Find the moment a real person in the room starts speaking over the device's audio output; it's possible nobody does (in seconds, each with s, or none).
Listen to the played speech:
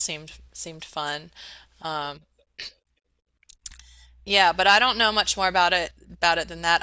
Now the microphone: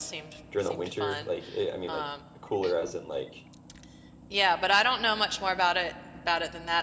0.5 s